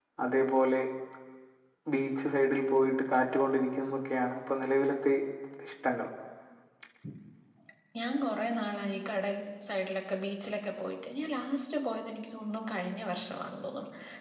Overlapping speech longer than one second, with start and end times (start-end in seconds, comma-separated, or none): none